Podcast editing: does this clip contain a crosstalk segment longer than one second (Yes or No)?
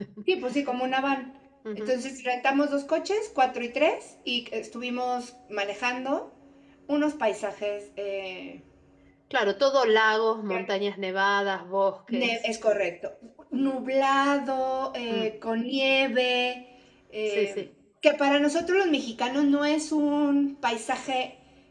No